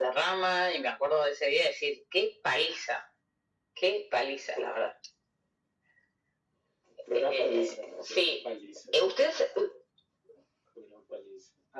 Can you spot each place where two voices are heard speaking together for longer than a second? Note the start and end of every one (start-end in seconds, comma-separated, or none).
7.1-8.4